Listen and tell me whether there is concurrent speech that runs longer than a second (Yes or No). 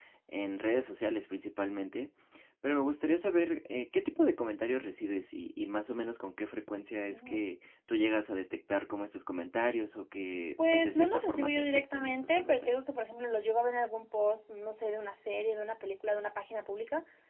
Yes